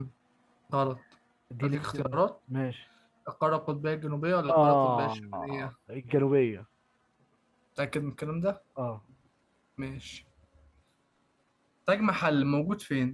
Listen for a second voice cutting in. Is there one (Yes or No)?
Yes